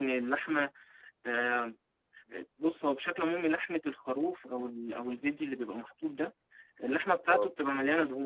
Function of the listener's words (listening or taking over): listening